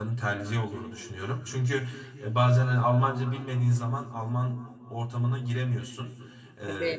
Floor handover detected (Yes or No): No